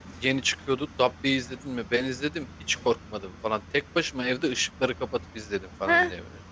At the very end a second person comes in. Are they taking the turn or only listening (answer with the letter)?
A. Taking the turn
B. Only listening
A